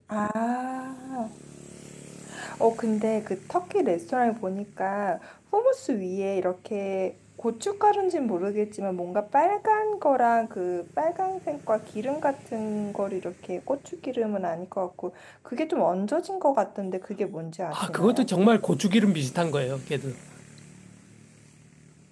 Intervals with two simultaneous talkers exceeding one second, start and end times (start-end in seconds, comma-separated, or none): none